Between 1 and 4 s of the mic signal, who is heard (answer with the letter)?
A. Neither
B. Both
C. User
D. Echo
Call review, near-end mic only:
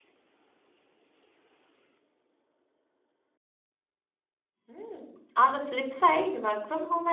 A